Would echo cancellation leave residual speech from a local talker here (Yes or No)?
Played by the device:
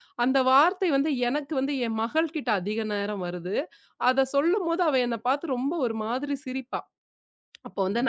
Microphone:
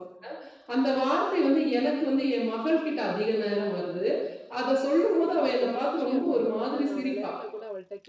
Yes